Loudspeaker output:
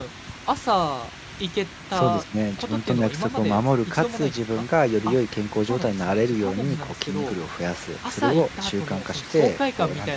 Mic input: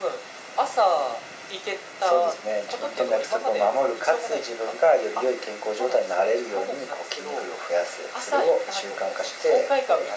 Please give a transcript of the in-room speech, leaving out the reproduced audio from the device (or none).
none